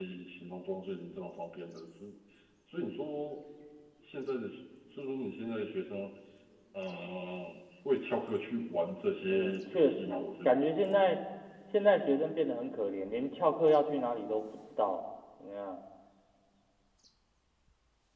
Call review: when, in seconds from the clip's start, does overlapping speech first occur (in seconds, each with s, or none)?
9.2 s